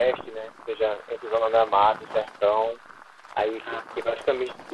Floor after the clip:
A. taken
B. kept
B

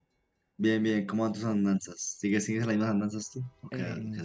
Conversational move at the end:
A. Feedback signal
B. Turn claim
B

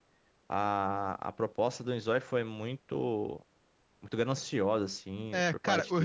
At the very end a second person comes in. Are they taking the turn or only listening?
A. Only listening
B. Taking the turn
B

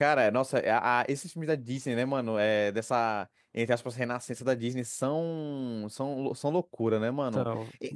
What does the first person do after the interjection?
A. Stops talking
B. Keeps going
B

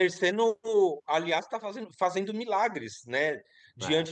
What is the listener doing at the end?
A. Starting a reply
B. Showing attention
B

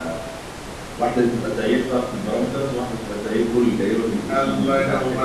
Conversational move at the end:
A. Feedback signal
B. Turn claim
B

